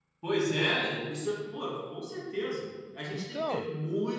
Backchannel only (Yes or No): Yes